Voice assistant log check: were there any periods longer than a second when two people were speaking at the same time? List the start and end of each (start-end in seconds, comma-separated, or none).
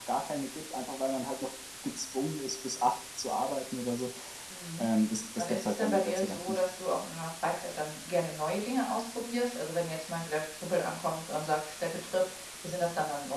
5.4-6.6